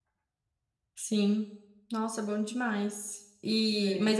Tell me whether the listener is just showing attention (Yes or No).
Yes